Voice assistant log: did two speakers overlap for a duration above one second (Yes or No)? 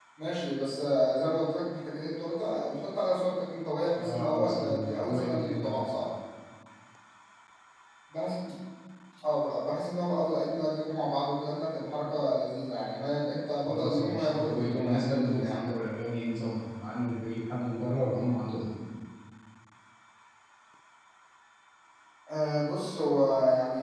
Yes